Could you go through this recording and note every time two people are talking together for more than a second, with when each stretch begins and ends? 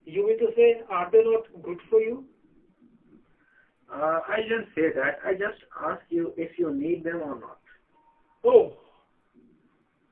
none

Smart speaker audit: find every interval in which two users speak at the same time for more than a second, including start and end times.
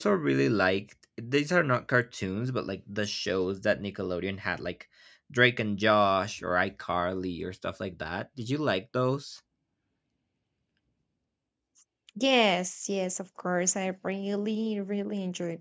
none

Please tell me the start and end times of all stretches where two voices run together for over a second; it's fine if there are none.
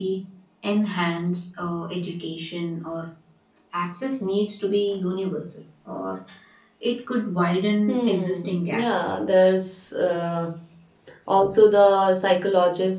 7.9-9.1

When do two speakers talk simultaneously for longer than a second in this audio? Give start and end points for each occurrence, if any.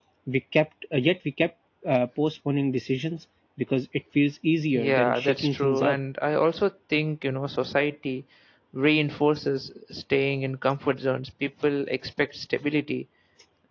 4.7-6.0

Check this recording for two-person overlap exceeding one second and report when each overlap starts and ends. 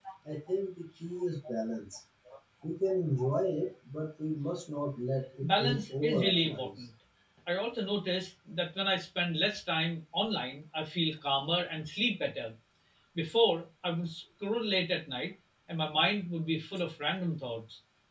5.4-6.8

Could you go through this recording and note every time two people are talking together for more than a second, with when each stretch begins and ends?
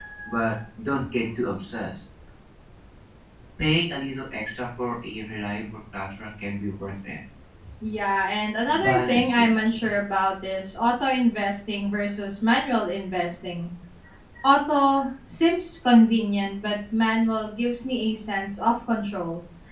8.6-9.9

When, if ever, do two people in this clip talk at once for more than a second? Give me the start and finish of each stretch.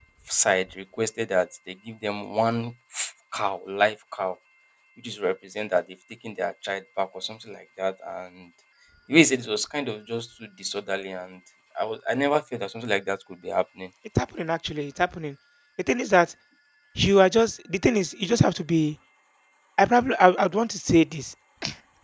none

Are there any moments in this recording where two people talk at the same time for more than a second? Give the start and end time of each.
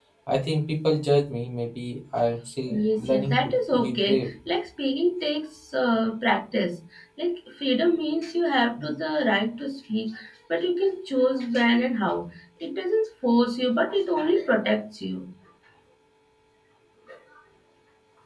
2.7-4.3

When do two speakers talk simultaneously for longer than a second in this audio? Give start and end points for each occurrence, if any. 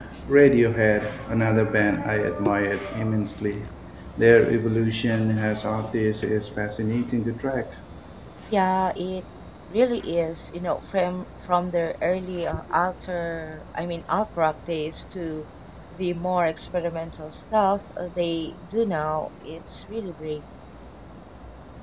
none

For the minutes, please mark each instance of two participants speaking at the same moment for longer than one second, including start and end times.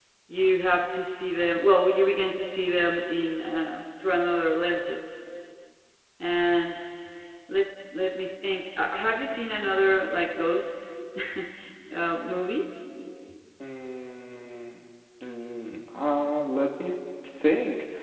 none

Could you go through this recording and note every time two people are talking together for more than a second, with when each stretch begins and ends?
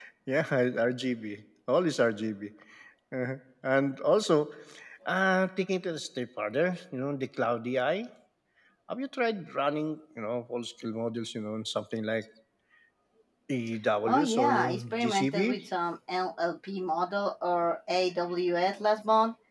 14.1-15.6

